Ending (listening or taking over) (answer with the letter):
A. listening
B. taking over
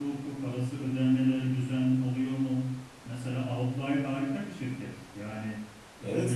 B